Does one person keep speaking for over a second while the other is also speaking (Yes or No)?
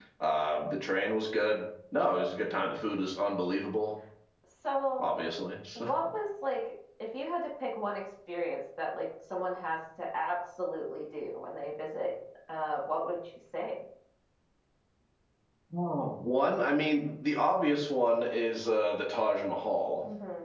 No